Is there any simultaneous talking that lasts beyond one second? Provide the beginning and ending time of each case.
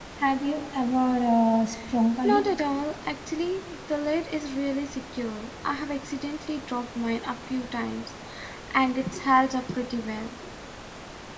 none

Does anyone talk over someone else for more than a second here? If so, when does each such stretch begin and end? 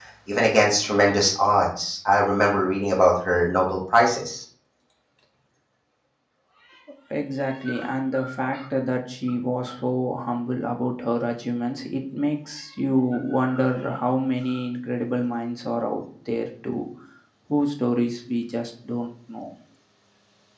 none

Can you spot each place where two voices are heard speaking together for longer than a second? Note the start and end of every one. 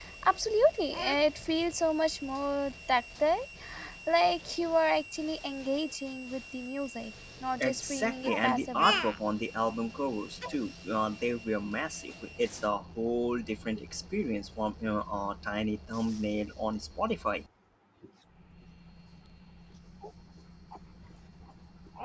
7.6-8.9

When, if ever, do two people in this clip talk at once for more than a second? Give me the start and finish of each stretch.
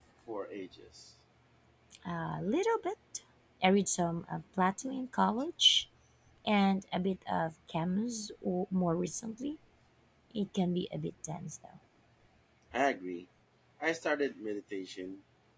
none

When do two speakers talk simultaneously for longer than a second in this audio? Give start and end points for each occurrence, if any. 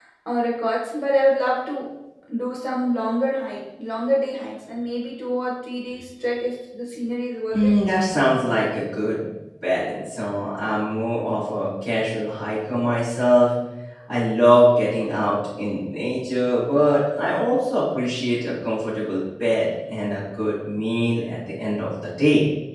none

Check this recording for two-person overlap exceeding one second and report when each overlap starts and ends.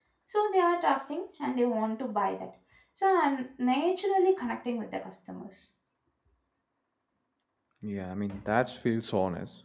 none

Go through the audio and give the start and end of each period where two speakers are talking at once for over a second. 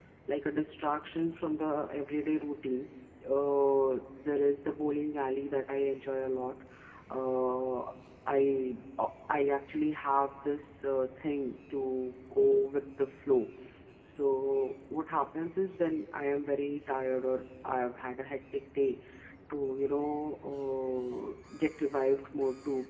none

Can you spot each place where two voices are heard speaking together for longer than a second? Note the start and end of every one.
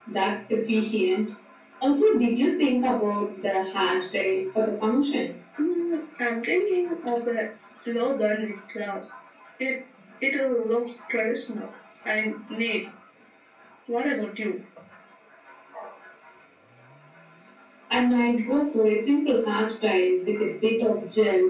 none

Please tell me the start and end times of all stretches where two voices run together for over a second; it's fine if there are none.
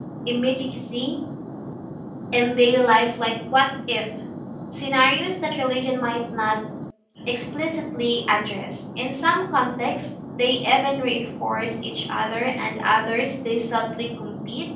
none

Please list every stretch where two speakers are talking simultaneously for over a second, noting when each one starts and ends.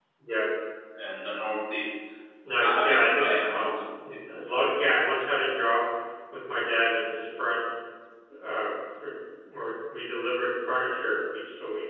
2.6-3.8

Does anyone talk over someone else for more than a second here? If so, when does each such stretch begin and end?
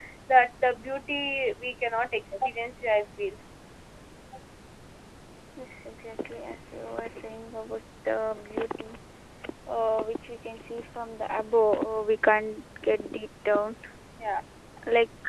none

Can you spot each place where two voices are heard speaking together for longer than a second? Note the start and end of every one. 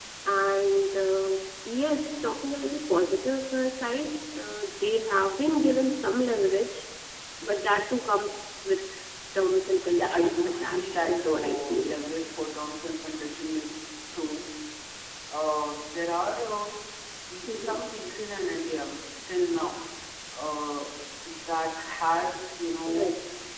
10.0-11.9

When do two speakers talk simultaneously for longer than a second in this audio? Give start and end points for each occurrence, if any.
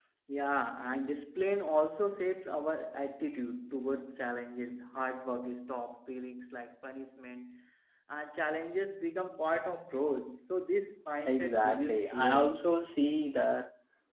11.3-12.6

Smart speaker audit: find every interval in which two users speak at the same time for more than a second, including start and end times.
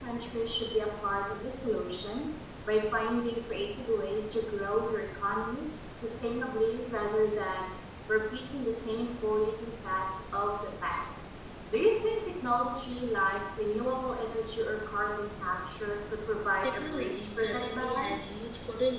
16.6-18.4

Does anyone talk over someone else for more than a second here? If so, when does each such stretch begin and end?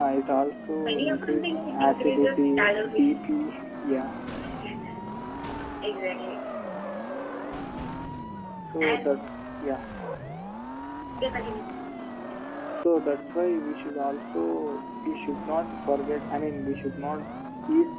0.8-3.2

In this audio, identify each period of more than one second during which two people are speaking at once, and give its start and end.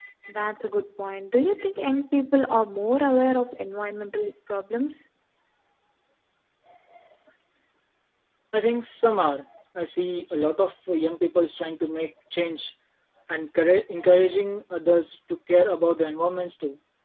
none

